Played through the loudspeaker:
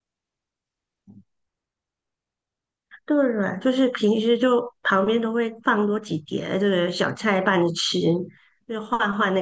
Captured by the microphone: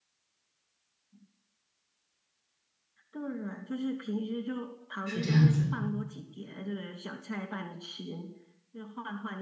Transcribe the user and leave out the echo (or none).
是这样子。